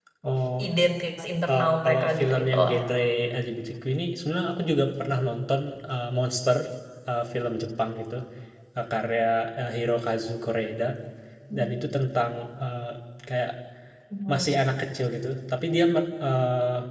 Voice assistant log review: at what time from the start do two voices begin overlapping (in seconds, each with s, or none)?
1.5 s